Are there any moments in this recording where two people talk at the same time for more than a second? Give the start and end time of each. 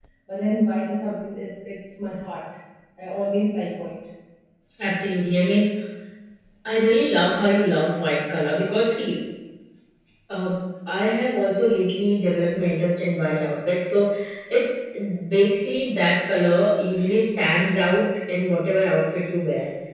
none

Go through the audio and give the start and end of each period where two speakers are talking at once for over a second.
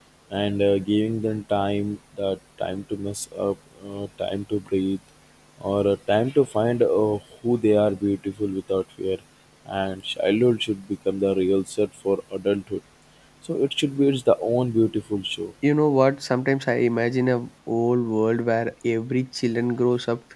none

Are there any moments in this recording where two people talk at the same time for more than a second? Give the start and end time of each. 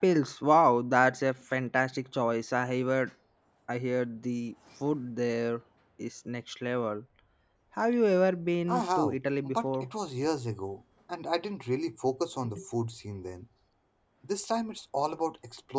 8.7-9.9

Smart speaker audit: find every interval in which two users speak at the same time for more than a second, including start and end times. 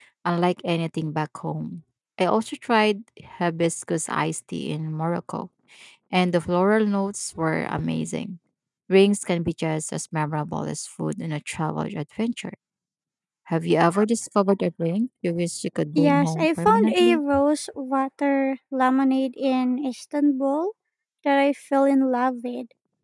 16.0-17.2

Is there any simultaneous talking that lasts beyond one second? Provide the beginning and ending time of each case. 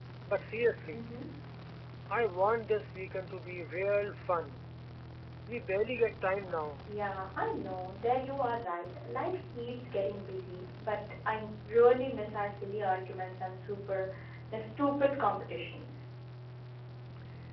none

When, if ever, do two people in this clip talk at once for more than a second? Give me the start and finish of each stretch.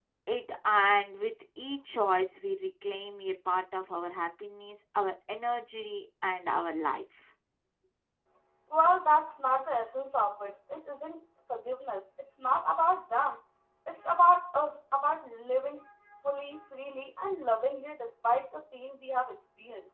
none

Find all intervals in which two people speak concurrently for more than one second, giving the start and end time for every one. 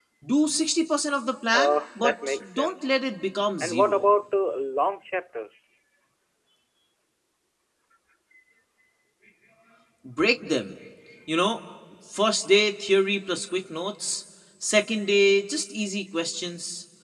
1.5-2.9

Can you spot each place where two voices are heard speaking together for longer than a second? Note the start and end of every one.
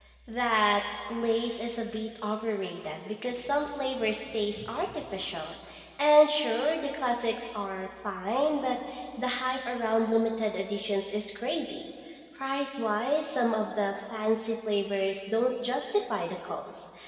none

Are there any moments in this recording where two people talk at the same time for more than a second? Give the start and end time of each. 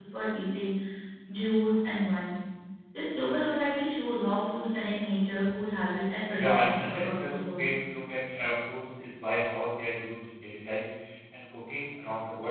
6.3-7.7

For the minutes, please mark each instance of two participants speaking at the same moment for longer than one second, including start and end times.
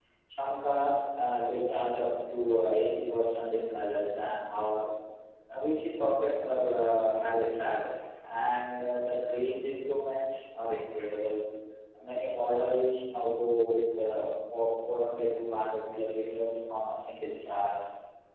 none

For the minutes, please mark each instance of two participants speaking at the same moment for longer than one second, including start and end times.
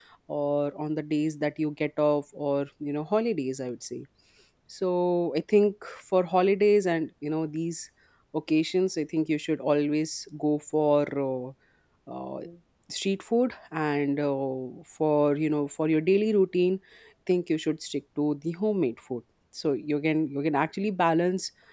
none

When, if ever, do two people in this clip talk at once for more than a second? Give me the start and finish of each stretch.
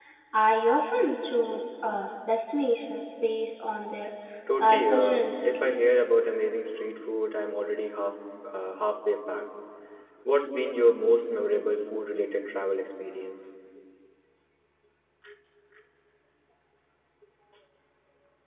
4.6-5.8

